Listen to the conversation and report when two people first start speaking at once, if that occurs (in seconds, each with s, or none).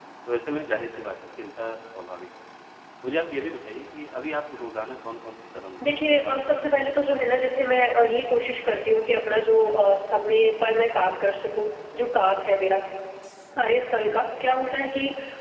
5.8 s